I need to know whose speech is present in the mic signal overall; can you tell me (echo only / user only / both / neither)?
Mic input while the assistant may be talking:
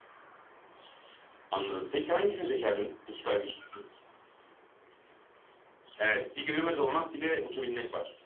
echo only